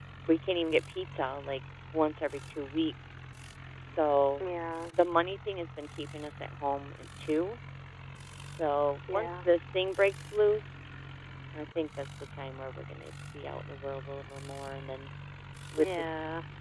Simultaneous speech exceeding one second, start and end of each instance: none

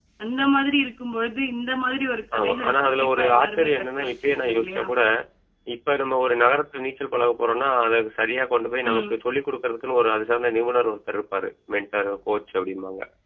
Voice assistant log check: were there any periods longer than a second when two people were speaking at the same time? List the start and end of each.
2.4-4.8

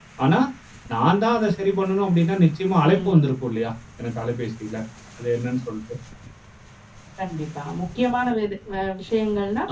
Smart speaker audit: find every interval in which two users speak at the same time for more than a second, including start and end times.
none

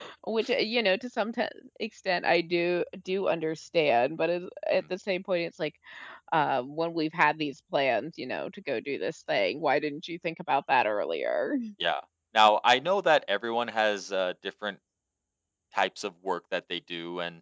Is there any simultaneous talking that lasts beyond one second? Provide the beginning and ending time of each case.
none

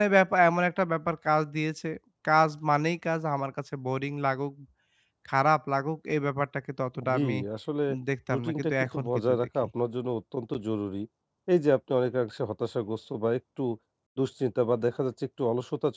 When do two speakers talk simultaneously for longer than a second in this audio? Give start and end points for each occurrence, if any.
8.3-9.7

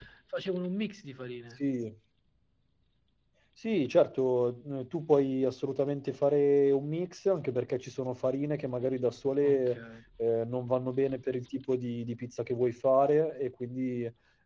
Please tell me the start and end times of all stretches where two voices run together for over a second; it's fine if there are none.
none

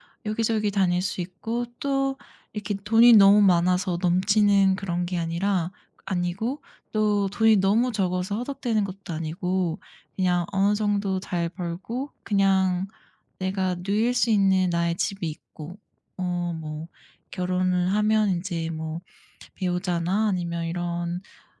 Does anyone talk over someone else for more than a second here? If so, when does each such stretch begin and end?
none

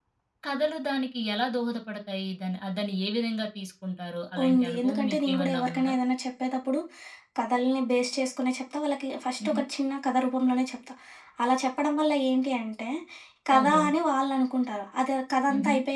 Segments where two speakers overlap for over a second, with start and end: 4.5-5.9

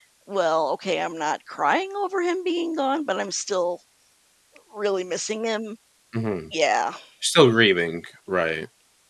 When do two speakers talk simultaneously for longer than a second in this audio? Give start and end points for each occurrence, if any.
none

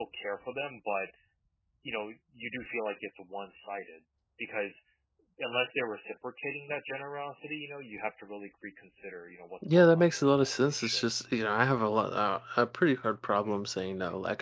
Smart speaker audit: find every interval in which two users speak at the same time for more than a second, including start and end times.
9.7-11.0

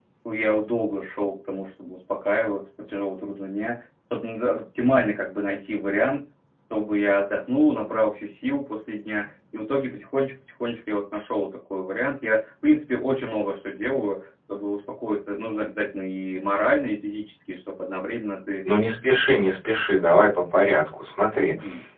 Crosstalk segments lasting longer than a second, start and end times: none

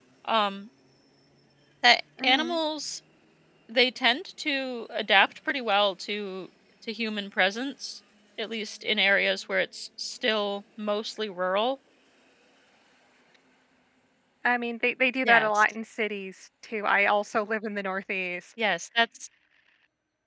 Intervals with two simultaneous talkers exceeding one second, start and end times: none

